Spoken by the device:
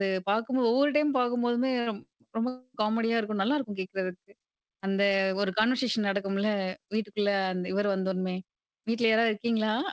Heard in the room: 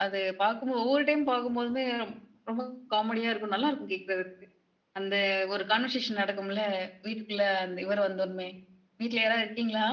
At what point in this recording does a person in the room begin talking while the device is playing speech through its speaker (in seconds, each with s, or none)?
none